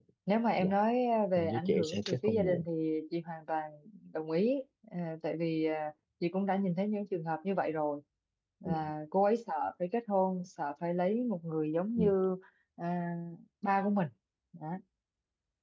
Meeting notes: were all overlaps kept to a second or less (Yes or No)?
No